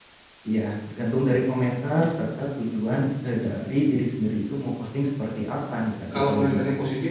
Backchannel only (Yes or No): No